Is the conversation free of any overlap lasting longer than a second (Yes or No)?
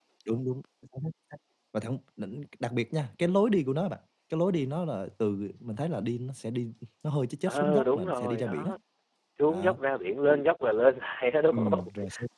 No